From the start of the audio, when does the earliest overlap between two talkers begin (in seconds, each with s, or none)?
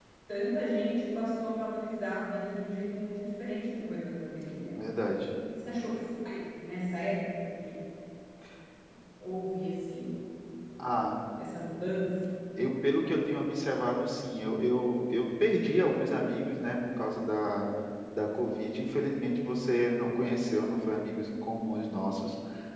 none